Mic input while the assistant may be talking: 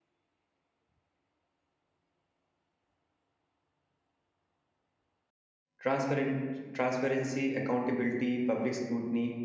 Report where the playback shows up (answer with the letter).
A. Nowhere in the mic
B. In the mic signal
A